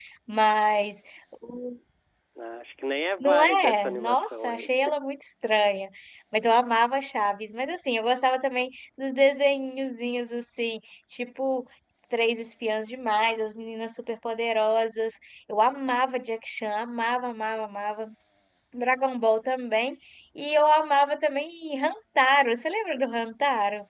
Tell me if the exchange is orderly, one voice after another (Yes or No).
No